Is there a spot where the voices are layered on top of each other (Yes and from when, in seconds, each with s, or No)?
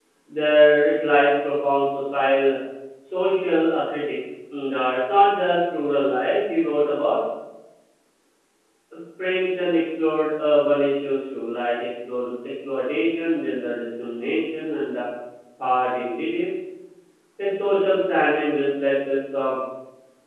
No